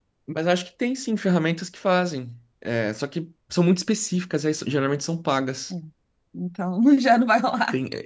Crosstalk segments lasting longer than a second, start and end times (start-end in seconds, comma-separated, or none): none